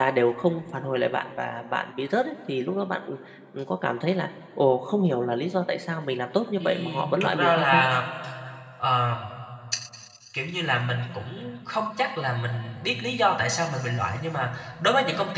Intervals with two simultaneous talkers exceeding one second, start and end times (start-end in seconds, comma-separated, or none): 6.6-7.8